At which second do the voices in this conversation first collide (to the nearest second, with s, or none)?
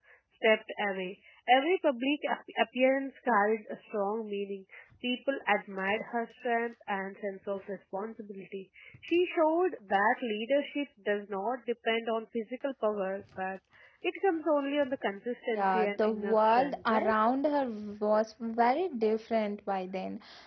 16 s